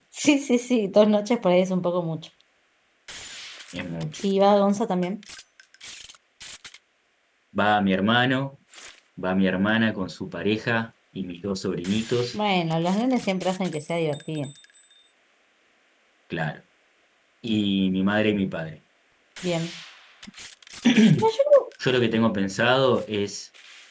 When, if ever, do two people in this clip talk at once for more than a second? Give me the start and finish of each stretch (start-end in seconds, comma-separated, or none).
none